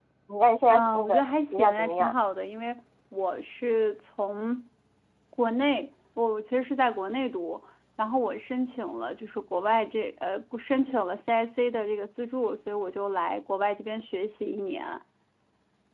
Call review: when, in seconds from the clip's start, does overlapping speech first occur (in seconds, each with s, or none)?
0.7 s